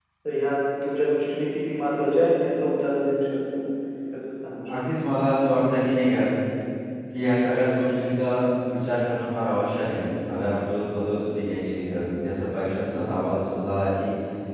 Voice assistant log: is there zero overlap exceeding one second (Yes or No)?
Yes